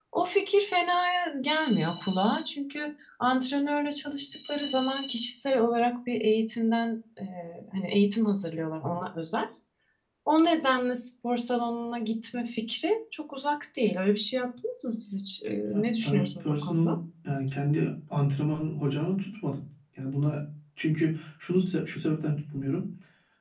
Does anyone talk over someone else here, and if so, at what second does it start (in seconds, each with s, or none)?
15.7 s